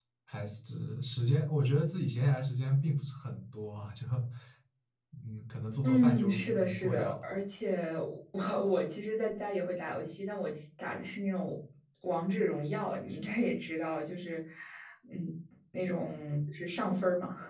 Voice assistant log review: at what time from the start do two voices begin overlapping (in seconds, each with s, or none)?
5.8 s